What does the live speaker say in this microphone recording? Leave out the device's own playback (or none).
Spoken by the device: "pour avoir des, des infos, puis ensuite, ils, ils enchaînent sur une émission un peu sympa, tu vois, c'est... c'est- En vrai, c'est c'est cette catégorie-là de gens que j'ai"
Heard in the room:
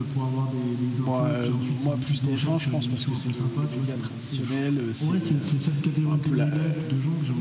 Bon, euh, moi, plus TF1, je pense, parce que c'est le, le média traditionnel, euh, c'est euh, bah, un peu la... euh,